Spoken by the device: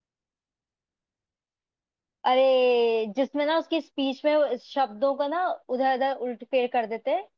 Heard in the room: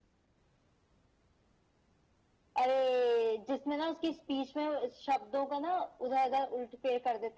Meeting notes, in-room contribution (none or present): none